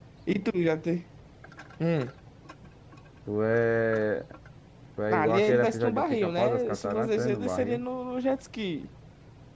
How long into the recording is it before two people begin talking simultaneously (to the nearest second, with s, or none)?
5 s